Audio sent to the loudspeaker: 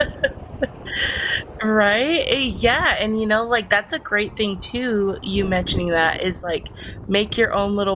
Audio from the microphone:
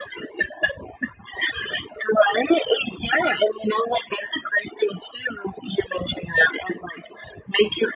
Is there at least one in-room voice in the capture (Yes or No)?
No